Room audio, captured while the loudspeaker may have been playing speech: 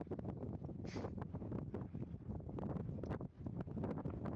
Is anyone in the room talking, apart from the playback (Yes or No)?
No